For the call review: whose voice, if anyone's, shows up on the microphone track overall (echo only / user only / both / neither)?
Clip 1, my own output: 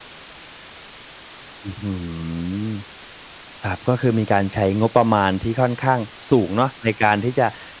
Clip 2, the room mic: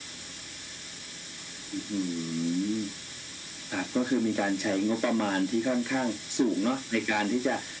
echo only